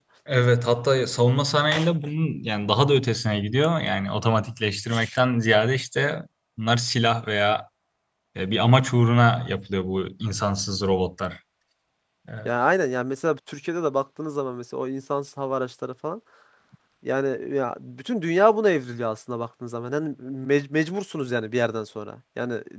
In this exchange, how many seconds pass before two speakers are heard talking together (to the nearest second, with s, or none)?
none